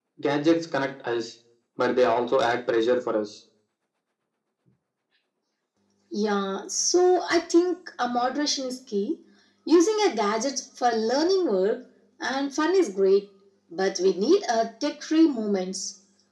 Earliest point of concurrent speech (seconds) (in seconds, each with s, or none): none